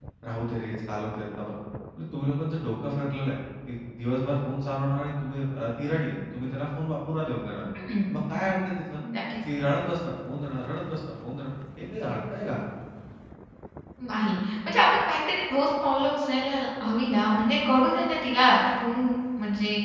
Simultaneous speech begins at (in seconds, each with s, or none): none